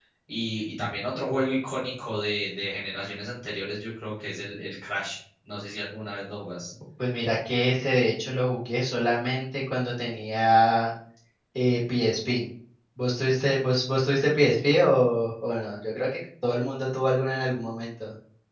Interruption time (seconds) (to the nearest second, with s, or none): none